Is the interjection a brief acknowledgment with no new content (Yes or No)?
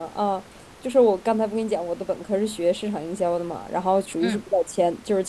Yes